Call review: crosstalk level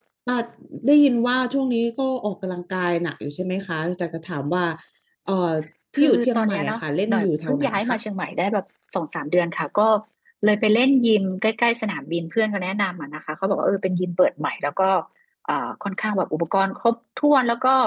present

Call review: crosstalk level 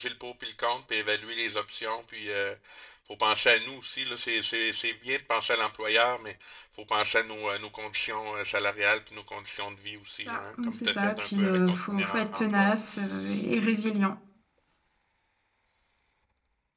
present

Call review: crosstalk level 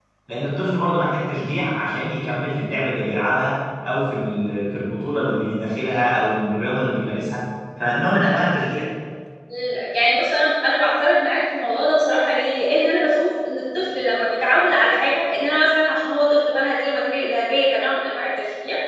none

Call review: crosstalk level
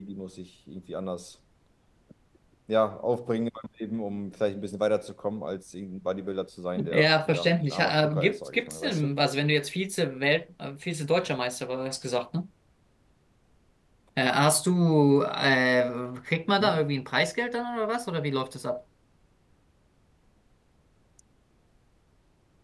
present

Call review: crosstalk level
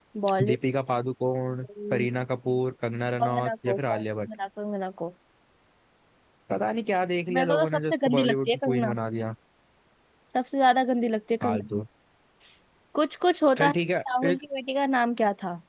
present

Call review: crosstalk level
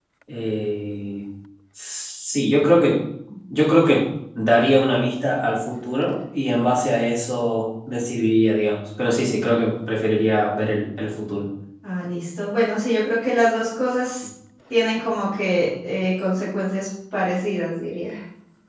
none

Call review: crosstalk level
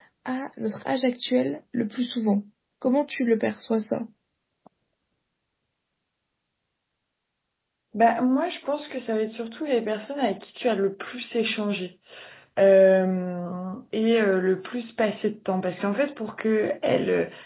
none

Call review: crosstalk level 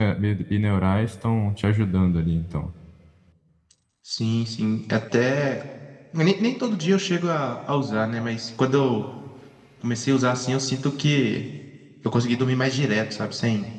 none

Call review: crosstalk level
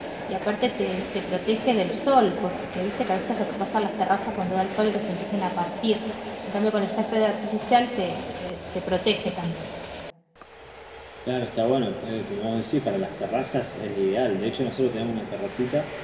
none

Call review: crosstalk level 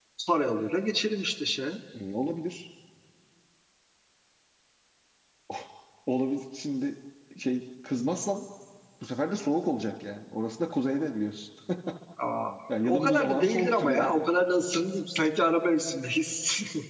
present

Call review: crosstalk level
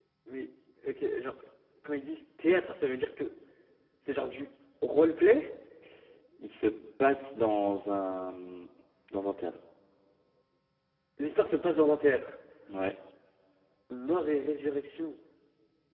none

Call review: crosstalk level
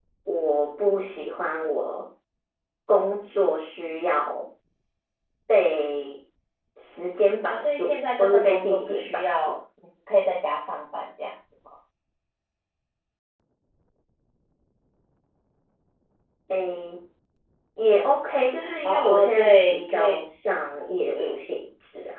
present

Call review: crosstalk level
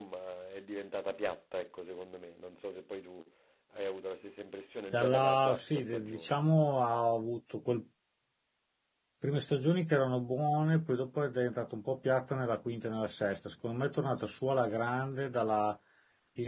present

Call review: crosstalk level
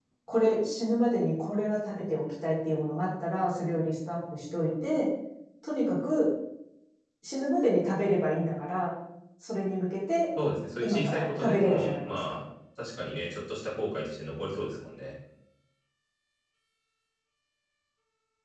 present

